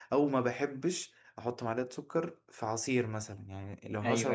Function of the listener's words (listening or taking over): listening